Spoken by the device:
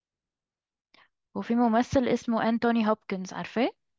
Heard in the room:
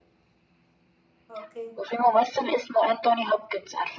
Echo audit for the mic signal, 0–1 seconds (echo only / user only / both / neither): neither